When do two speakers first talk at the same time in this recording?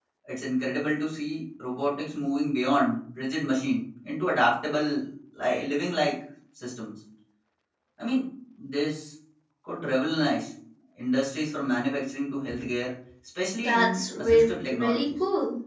13.6 s

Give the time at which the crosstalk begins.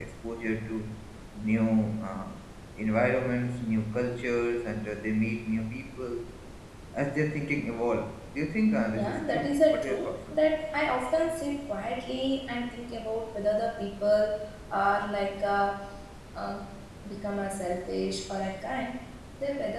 8.9 s

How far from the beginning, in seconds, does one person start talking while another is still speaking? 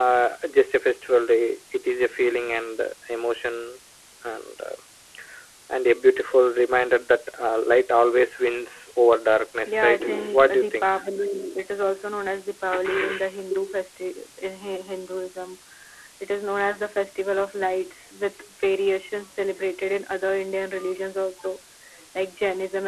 9.7 s

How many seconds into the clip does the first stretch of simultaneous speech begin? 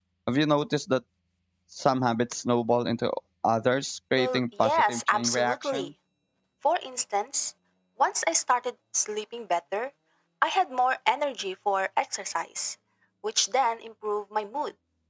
4.2 s

